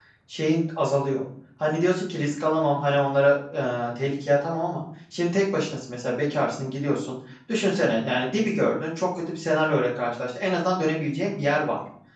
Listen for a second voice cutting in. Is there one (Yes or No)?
No